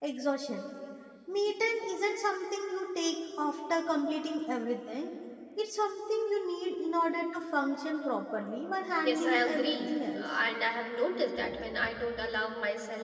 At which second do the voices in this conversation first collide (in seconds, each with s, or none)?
9.0 s